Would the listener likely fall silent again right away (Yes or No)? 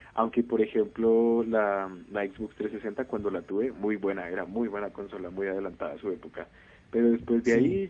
Yes